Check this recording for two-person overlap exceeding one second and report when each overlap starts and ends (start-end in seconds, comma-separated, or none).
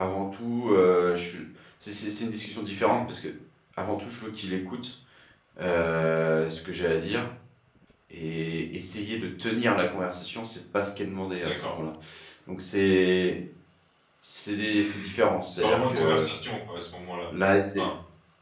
14.6-16.3